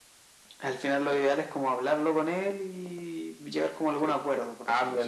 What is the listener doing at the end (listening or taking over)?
taking over